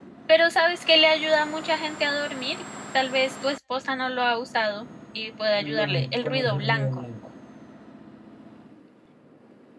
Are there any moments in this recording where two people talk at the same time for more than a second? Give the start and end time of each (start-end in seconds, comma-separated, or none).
5.5-7.0